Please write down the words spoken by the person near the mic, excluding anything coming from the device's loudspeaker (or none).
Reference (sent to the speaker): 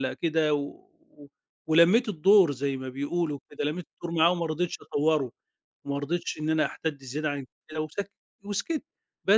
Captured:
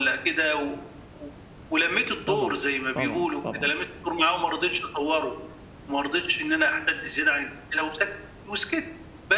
طبعًا، طبعًا، طبعًا.